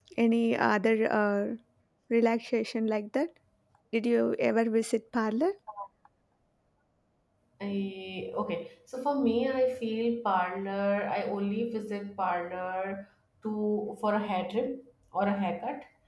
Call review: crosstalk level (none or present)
none